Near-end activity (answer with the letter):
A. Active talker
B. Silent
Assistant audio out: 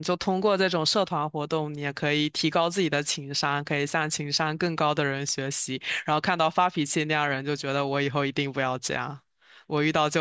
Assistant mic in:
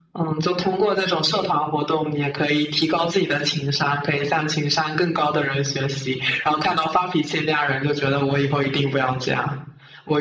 B